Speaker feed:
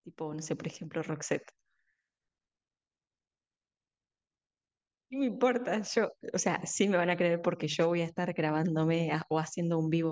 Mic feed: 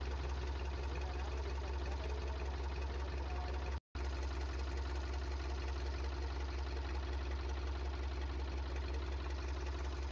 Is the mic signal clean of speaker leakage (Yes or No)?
Yes